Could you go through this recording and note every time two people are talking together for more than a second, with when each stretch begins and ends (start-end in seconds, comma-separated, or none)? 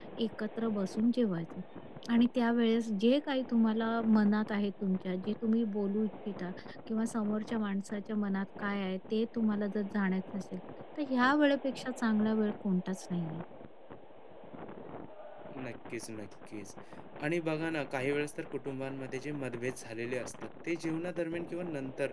none